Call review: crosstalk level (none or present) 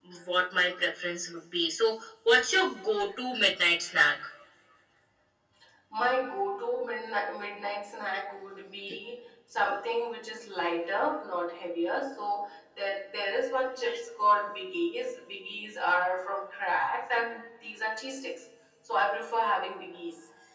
none